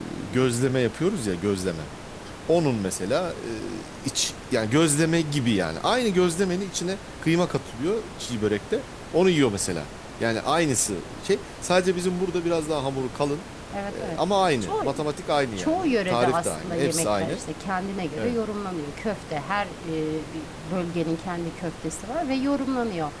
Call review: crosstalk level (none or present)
present